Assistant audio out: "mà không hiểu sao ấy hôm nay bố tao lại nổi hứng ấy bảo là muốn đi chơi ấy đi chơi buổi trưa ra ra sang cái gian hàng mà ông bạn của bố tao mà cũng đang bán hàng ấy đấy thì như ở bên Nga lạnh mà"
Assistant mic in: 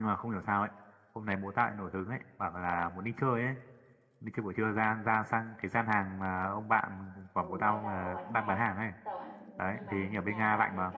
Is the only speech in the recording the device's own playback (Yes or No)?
No